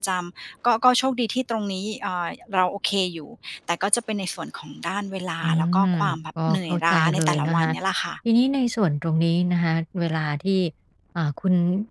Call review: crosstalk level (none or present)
present